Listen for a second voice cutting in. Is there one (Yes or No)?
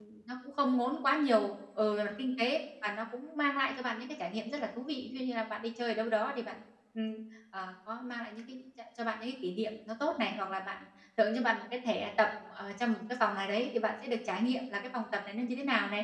No